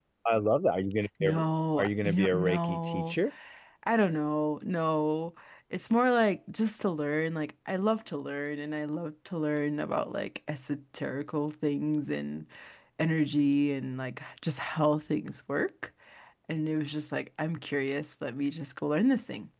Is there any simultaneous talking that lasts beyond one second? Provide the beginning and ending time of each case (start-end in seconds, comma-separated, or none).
1.8-3.2